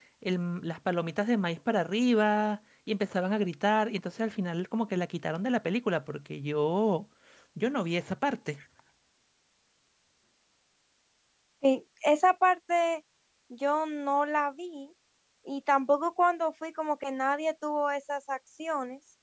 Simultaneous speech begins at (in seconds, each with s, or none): none